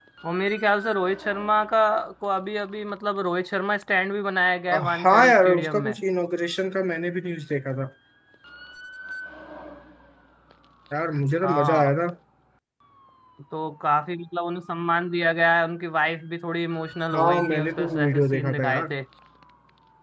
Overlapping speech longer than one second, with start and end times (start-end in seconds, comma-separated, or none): 4.7-6.0, 17.1-18.9